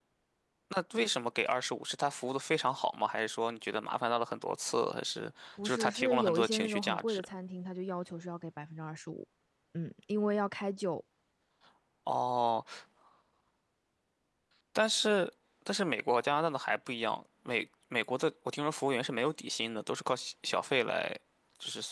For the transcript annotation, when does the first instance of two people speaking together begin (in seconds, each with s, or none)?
5.6 s